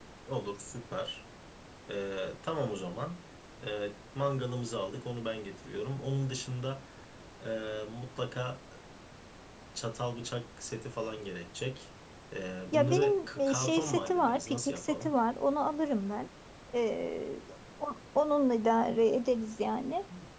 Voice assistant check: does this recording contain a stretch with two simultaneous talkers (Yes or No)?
Yes